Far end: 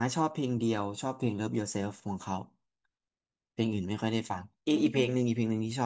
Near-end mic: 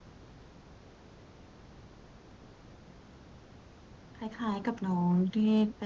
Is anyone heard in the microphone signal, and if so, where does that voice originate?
user only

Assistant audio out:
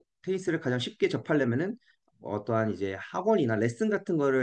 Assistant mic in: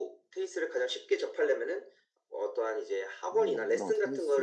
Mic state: both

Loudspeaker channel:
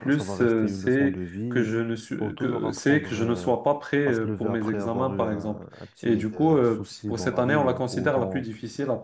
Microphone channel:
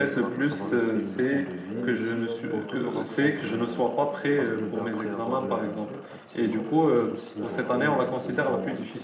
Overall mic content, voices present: both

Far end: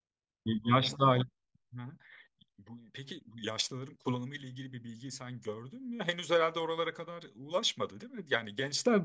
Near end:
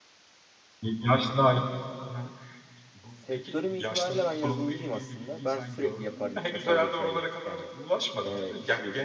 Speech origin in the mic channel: both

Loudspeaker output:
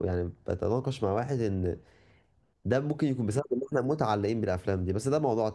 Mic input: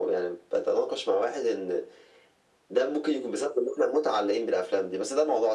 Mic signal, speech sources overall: echo only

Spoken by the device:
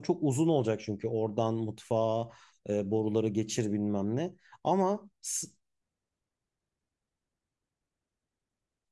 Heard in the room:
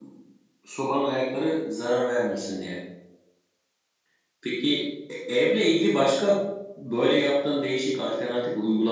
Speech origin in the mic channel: user only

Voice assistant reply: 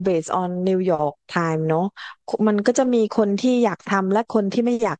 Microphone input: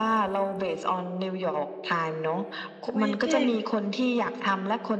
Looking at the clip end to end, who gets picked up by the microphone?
both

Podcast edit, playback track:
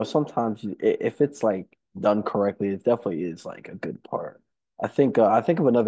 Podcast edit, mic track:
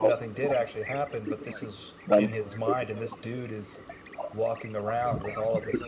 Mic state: both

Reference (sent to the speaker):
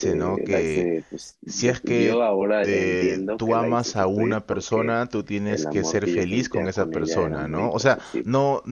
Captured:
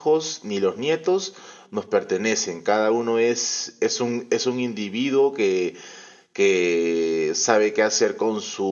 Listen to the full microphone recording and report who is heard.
user only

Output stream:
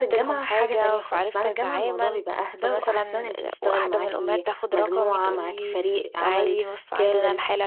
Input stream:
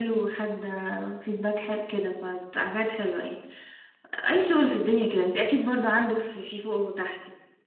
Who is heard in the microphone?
user only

